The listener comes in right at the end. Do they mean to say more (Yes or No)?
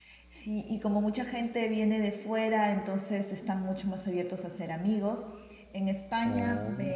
No